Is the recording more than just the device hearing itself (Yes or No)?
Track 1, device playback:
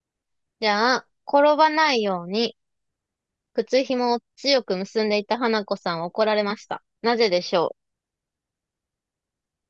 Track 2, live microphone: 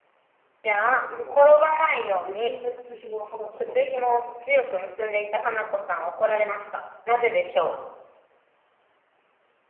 Yes